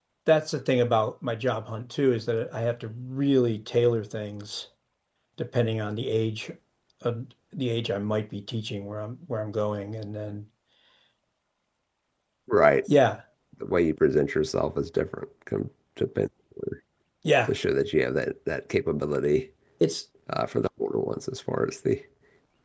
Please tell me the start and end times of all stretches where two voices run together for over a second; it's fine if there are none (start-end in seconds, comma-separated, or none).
none